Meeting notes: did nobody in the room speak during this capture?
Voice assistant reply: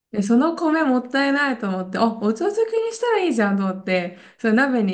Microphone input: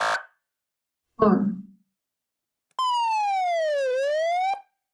No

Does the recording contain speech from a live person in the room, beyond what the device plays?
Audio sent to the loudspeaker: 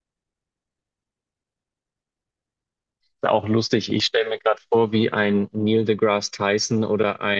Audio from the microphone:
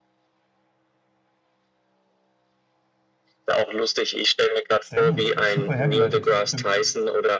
Yes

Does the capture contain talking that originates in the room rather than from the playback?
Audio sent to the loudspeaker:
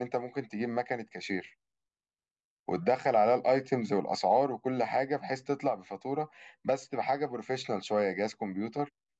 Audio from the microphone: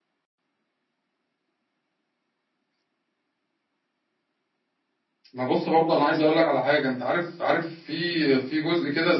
Yes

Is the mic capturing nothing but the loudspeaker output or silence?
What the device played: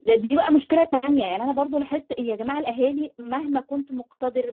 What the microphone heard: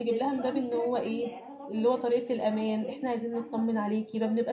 No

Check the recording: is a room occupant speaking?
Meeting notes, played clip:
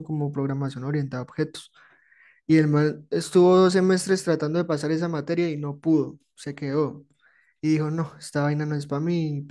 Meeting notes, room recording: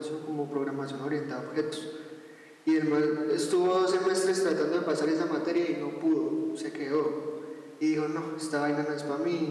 No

